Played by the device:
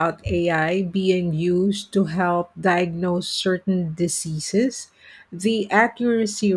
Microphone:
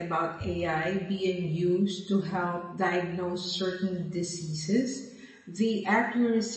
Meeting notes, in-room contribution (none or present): none